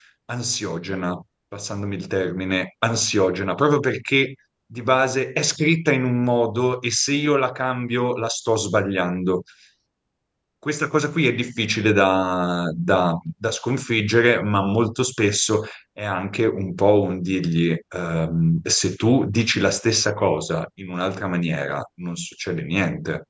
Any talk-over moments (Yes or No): No